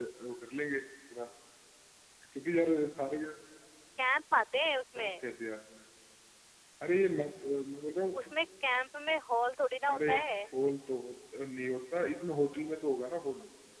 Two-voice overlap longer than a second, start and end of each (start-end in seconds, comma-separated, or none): none